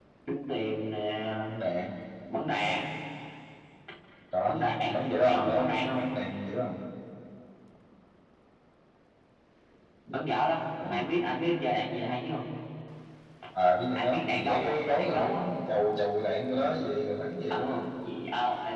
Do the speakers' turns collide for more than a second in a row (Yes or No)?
Yes